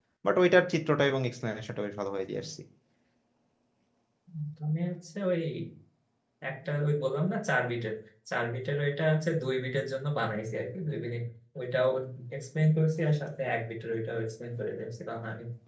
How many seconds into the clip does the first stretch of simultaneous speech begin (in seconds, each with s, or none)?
none